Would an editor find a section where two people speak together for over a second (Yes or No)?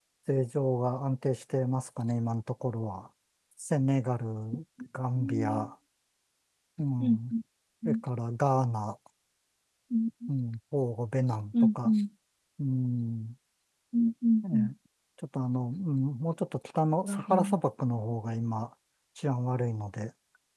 No